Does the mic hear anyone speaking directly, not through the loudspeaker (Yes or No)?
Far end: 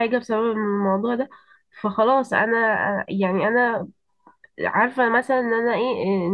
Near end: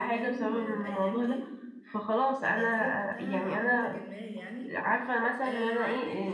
Yes